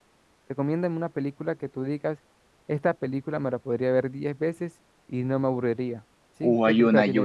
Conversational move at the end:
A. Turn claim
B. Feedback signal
A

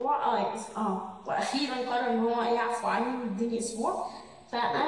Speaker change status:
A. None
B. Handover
A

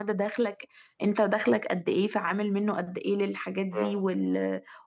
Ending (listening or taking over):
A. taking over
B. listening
B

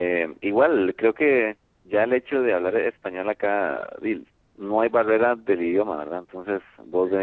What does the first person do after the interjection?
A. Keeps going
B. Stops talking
A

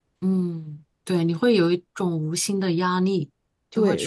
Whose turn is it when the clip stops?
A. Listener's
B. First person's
A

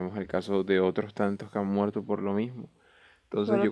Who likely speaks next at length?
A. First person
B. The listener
B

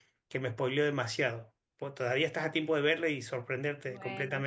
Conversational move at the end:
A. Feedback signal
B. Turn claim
B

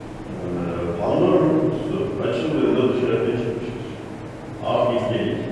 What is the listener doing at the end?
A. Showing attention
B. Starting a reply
A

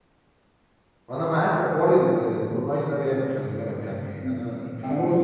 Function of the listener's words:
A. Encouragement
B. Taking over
B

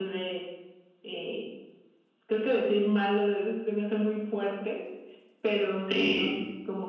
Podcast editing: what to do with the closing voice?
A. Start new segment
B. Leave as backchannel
B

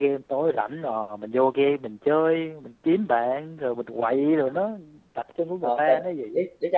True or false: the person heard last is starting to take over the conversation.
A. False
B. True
B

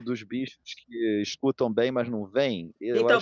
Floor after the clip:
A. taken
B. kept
A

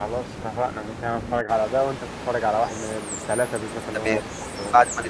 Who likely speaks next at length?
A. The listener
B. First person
A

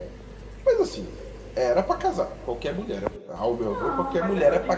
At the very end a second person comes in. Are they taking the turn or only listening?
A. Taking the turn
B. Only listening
A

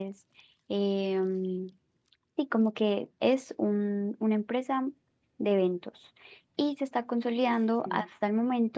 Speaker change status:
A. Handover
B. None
B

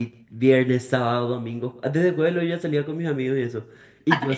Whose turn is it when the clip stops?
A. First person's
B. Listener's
A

